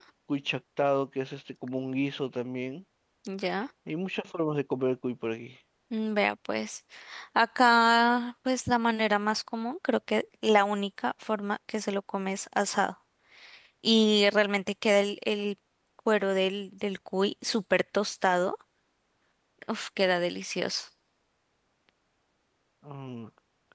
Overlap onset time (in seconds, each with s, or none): none